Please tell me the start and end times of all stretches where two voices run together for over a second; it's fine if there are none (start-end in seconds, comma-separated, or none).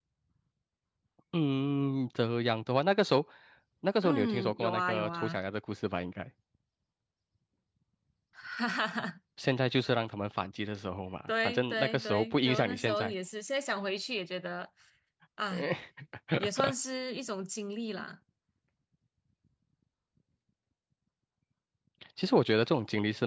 4.0-5.4, 11.3-13.1